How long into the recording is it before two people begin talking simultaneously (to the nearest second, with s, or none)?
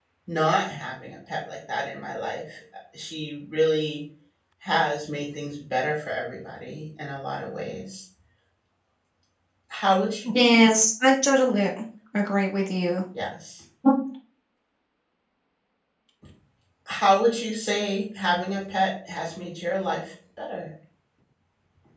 none